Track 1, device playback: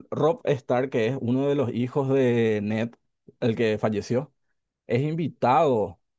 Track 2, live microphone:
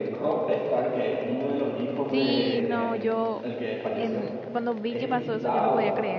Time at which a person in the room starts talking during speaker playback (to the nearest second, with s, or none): 2 s